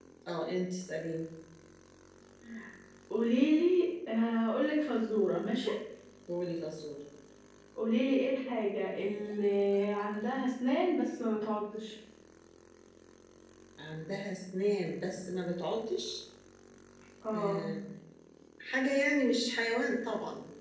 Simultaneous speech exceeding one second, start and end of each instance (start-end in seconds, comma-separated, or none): none